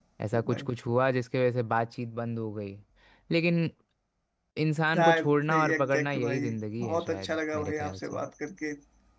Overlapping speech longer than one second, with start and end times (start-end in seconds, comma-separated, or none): 4.9-8.2